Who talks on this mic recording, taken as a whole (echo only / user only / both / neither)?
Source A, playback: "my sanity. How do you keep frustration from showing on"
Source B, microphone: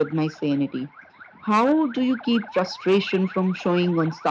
echo only